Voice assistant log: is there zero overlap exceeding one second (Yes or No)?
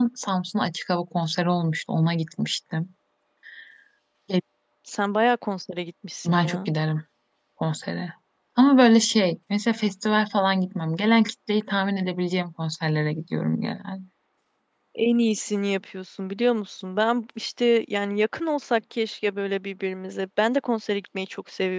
Yes